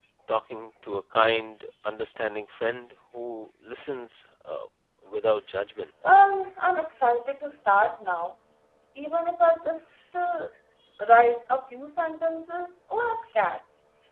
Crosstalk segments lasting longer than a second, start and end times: none

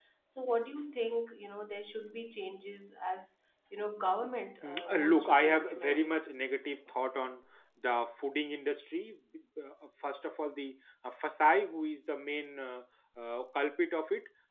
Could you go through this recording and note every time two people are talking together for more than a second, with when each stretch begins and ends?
4.6-6.2

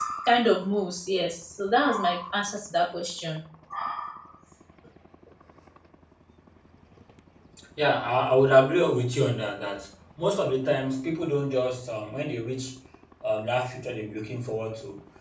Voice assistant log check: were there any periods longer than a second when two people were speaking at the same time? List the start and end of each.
none

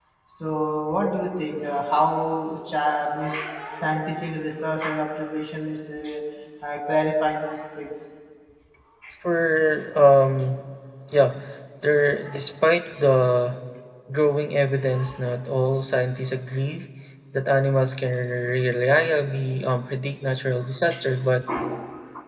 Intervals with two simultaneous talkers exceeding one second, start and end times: none

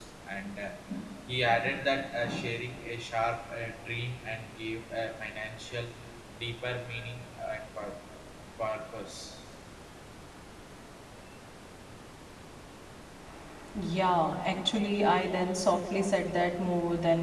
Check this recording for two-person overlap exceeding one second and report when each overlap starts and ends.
none

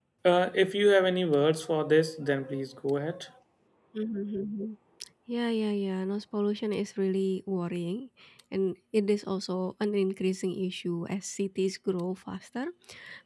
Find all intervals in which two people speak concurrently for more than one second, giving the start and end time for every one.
none

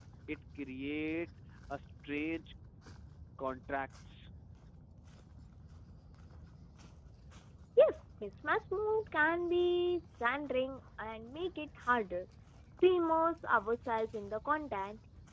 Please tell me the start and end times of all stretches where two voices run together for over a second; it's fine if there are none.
none

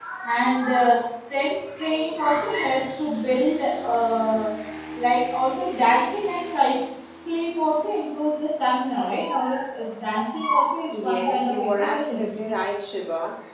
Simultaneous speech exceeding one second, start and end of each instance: 11.0-12.3

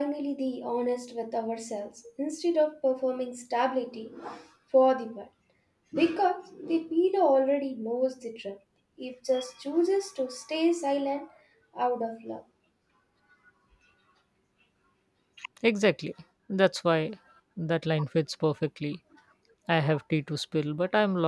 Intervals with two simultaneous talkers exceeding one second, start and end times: none

